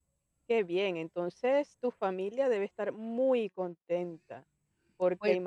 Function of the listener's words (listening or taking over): listening